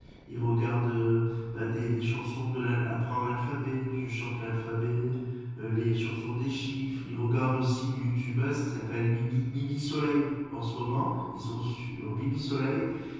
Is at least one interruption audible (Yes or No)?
No